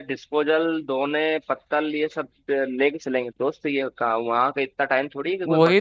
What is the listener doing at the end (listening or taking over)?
taking over